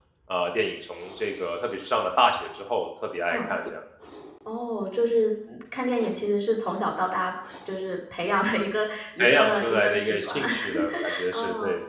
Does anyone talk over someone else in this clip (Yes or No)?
Yes